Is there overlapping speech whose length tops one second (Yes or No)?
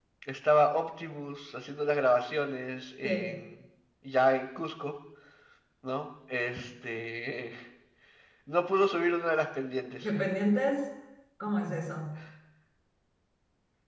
No